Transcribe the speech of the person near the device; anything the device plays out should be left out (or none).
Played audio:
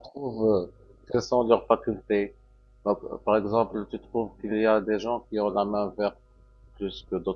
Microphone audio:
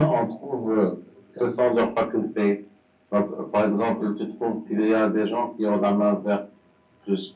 none